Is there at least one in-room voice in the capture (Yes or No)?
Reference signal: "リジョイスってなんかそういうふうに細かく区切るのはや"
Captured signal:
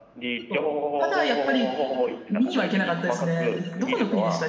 Yes